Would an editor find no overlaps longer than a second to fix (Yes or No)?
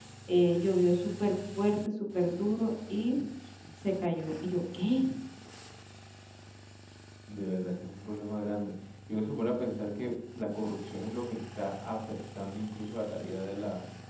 Yes